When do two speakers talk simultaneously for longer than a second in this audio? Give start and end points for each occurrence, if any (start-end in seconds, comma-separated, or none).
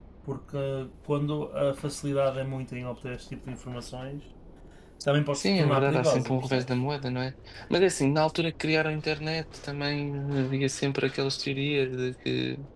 5.3-6.8